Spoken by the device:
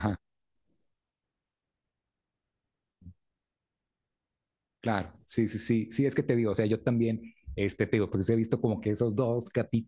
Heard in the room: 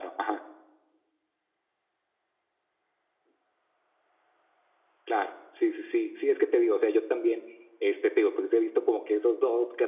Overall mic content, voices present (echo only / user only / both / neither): echo only